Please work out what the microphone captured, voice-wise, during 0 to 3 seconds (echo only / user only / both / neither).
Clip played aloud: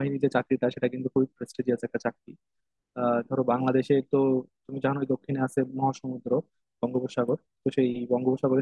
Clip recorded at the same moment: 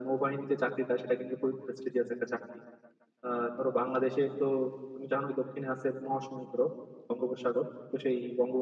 echo only